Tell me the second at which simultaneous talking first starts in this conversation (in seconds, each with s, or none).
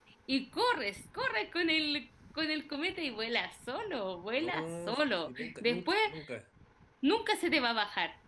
4.4 s